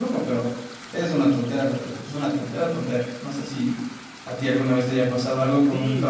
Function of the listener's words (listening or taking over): taking over